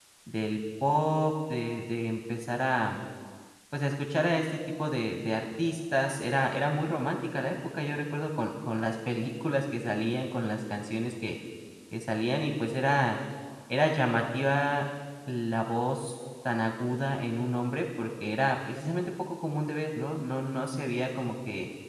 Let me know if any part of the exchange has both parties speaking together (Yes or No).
No